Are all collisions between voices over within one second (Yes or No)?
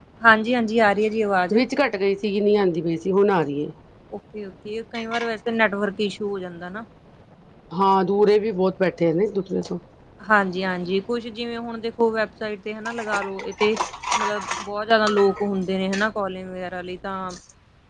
Yes